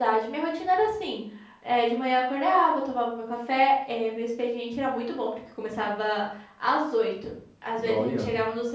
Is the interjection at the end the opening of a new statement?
No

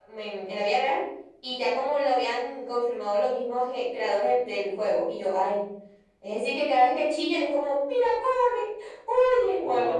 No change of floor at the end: No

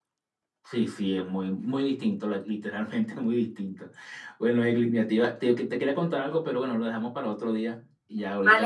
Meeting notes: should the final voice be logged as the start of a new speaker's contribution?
Yes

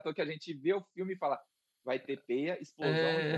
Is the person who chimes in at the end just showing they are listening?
No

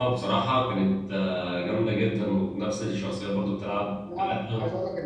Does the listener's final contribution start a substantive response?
Yes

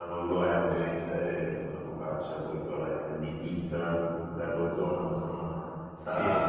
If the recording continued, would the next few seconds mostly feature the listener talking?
No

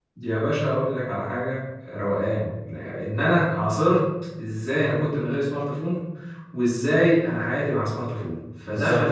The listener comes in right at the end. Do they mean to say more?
Yes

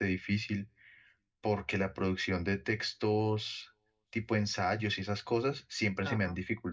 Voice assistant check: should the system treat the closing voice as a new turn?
No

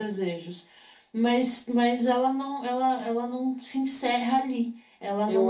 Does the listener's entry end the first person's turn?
Yes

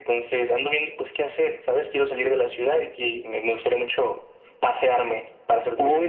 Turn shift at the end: Yes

